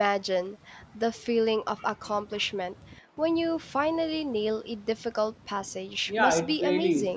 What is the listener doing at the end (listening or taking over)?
taking over